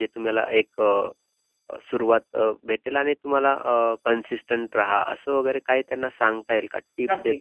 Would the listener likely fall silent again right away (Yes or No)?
No